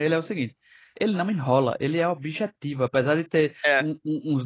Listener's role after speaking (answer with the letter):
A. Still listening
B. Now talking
A